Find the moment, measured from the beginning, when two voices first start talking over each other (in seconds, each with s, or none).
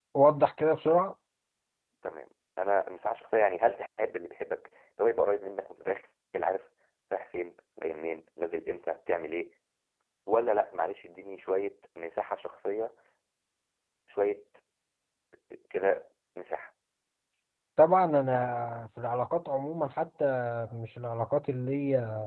none